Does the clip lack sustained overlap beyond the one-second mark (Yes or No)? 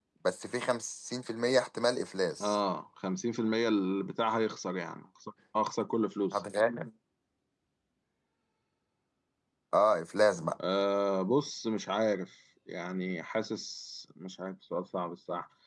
Yes